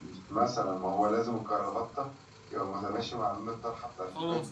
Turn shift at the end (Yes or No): Yes